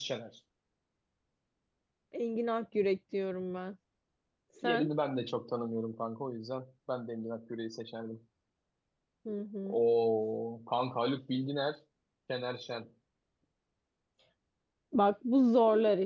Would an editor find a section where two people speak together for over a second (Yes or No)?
No